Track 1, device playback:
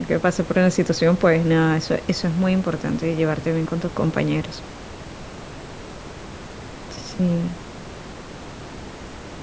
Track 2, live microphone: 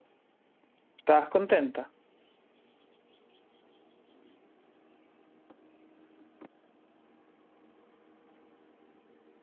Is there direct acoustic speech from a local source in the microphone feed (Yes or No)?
Yes